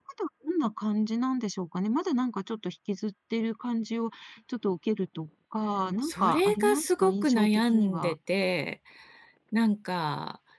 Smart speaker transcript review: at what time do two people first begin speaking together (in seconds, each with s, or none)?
6.0 s